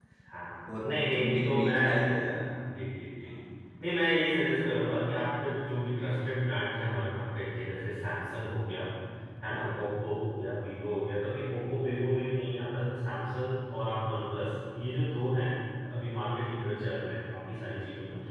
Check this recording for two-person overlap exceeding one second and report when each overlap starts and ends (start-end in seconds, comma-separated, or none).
0.8-2.2